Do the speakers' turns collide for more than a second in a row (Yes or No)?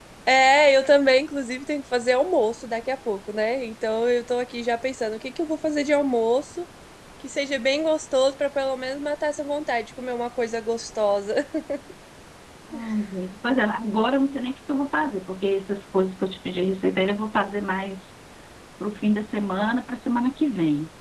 No